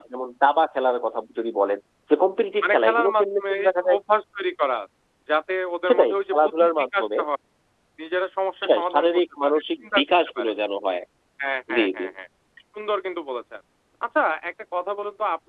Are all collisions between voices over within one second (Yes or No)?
No